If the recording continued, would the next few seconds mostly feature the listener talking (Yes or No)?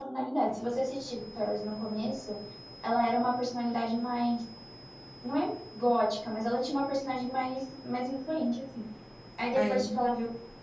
No